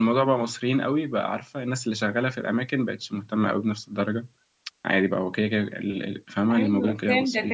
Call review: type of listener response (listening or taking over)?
taking over